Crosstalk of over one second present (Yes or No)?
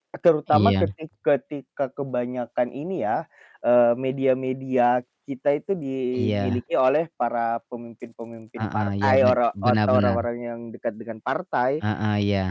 Yes